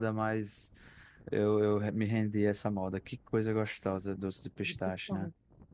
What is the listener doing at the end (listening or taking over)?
taking over